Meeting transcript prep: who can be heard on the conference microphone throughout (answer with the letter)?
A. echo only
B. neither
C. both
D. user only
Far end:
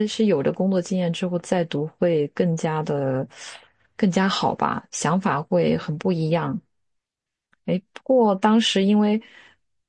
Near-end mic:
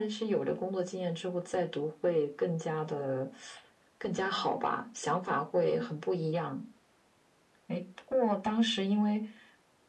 A